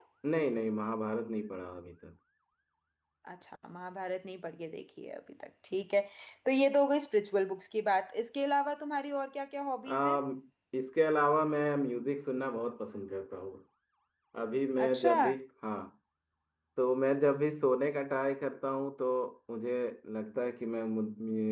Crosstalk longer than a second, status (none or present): none